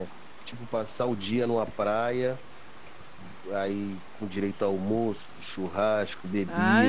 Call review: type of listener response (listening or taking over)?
taking over